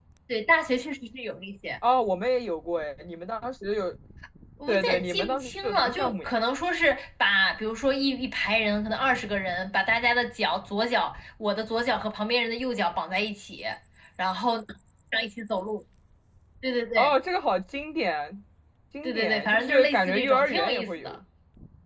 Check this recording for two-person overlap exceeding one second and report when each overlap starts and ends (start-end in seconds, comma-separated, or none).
4.7-6.4, 19.0-21.2